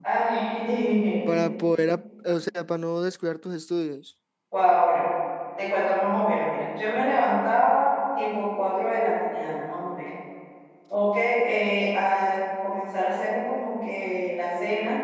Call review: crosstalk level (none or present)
none